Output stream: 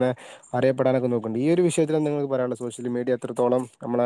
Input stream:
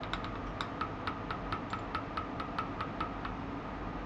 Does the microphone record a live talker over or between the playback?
No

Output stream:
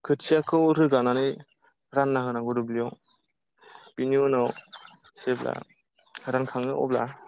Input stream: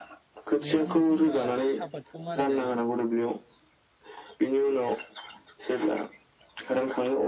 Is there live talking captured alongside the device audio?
Yes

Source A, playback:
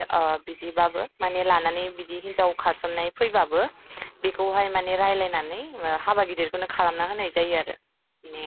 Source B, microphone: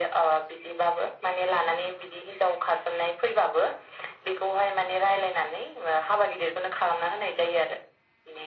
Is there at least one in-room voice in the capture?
No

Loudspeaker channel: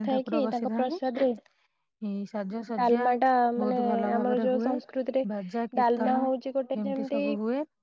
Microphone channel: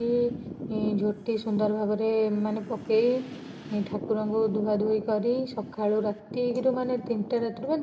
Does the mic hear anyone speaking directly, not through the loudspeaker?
Yes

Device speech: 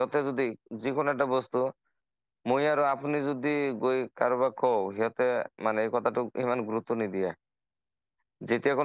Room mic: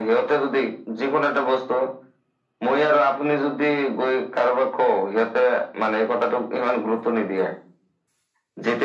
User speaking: No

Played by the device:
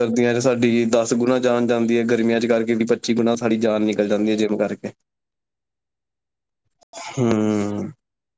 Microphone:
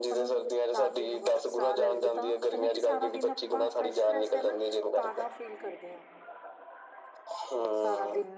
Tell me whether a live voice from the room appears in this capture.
Yes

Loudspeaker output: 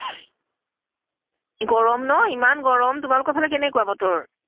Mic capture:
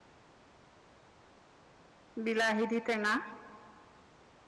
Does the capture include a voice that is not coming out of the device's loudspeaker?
Yes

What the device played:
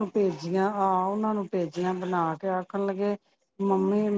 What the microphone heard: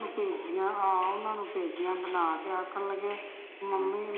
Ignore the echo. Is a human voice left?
No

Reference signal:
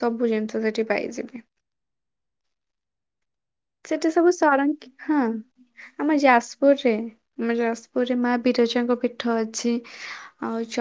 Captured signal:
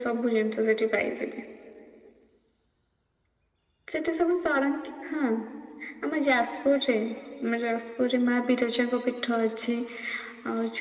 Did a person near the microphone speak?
No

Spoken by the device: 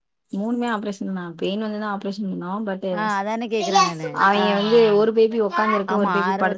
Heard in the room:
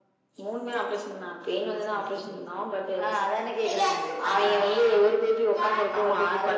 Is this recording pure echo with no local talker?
No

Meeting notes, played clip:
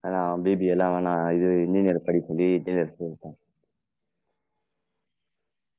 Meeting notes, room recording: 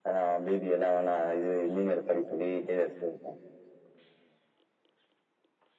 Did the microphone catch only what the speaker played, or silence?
Yes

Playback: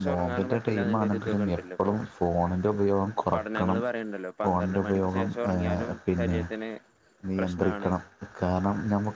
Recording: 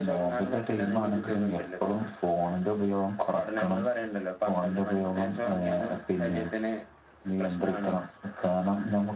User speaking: No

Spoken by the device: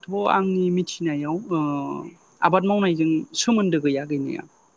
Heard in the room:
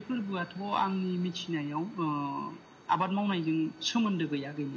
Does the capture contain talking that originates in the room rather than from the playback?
No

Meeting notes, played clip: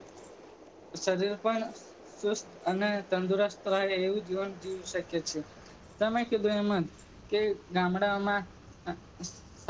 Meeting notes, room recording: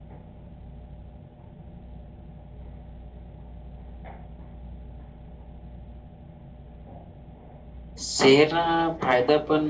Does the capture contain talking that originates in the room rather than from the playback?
Yes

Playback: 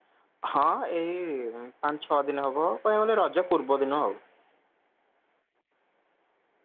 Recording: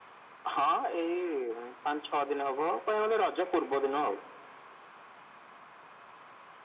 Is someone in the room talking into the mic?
No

